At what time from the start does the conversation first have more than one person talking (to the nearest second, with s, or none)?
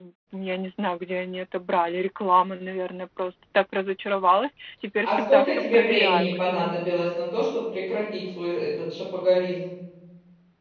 5 s